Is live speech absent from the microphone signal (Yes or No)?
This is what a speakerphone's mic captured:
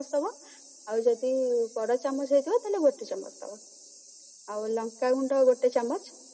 Yes